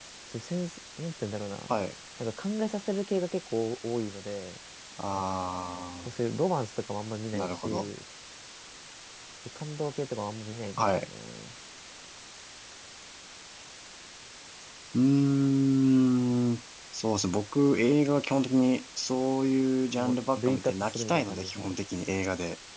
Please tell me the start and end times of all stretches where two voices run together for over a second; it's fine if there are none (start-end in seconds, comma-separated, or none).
20.0-21.8